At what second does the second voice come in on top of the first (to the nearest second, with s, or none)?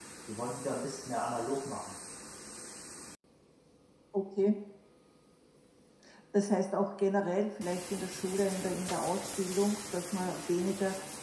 none